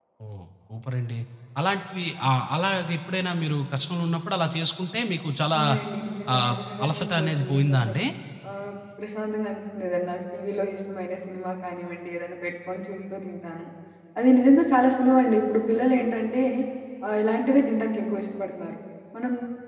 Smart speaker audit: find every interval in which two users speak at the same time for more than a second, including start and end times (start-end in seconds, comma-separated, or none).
6.3-7.9